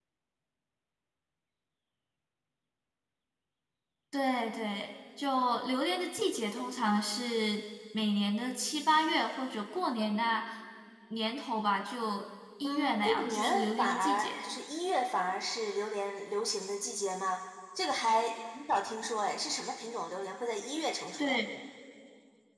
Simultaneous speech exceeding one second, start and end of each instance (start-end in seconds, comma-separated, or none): 12.6-14.3